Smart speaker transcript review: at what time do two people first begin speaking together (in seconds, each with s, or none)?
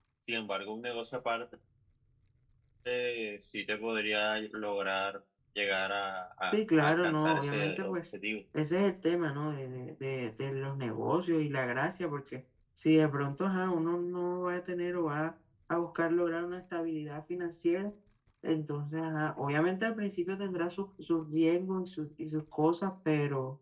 6.4 s